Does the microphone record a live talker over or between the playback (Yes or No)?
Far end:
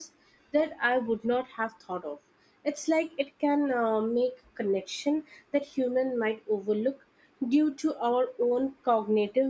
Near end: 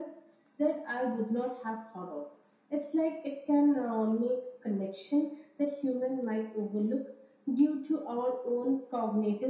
No